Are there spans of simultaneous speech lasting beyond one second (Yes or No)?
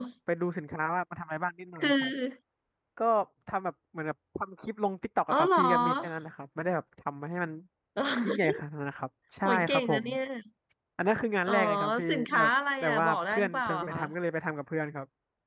Yes